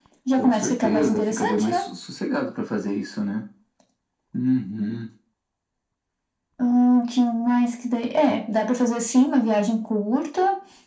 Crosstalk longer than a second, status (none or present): present